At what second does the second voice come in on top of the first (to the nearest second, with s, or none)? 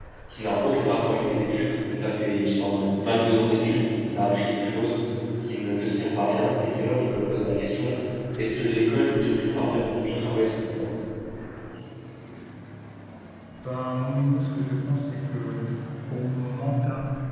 none